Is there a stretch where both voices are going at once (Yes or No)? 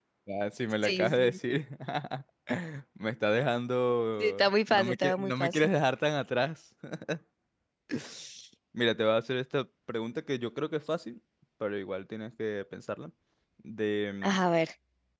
Yes